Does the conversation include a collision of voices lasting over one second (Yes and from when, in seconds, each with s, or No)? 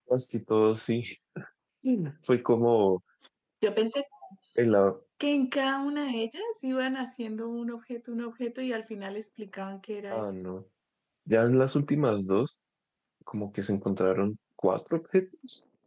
No